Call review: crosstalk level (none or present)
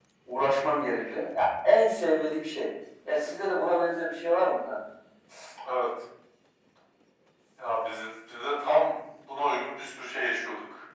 none